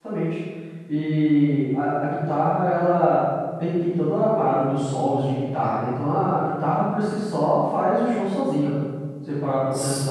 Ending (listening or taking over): taking over